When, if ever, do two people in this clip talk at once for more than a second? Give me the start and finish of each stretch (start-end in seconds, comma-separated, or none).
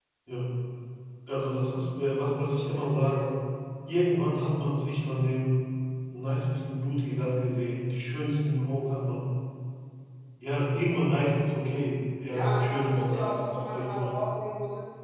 12.3-14.3